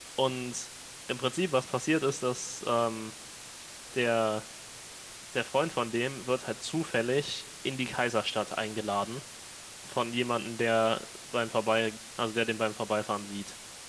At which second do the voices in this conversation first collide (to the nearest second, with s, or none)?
none